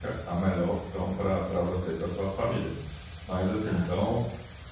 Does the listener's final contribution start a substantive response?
No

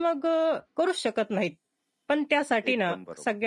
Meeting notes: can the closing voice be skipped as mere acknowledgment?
Yes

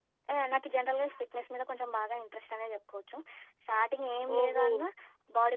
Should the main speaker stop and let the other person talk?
No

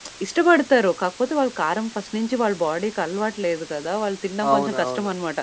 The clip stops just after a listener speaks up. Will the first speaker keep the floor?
Yes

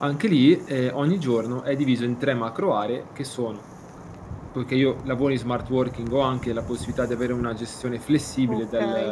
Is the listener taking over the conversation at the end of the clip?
Yes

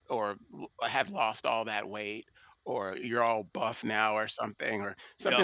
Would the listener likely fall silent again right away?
Yes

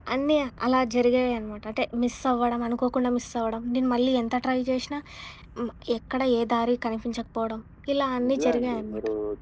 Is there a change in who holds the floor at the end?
Yes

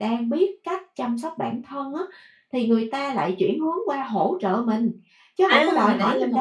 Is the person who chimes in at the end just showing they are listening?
No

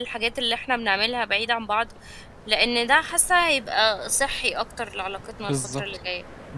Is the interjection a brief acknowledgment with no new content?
No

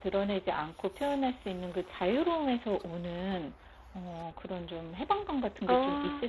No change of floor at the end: Yes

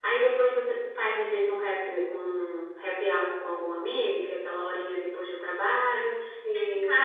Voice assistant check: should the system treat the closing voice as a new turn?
No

